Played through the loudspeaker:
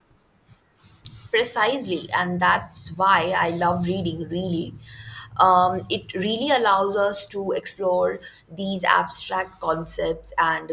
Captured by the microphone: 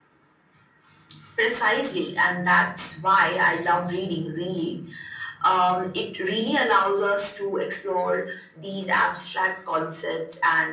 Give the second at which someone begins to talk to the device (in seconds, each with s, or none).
none